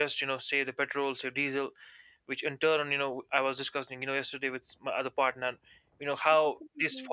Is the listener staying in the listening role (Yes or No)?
Yes